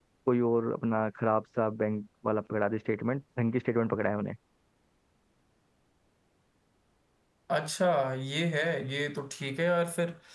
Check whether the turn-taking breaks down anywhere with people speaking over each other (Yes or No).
No